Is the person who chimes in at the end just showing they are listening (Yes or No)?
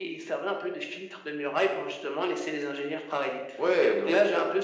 No